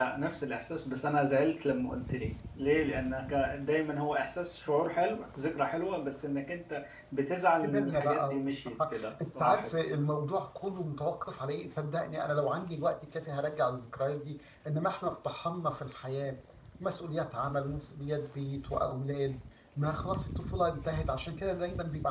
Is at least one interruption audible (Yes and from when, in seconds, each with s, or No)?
Yes, from 7.6 s